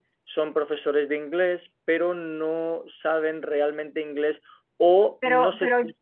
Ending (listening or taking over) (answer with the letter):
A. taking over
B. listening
B